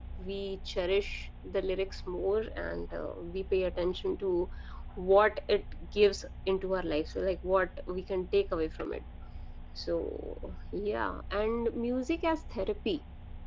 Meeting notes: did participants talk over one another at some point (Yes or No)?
No